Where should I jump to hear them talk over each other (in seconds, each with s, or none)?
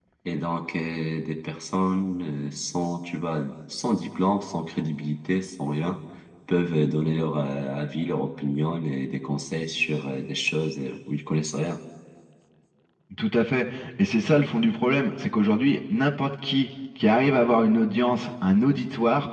none